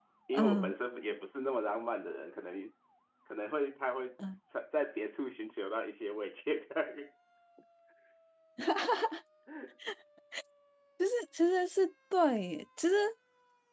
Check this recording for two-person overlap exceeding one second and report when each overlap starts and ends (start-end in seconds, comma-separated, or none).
none